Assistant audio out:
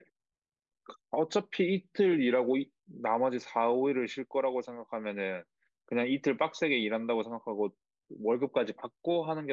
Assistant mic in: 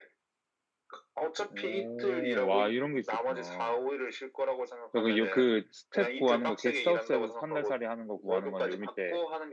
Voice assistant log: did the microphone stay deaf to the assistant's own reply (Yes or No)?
No